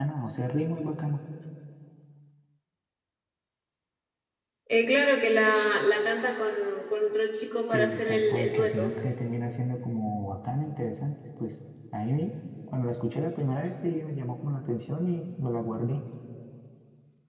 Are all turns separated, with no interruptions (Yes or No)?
No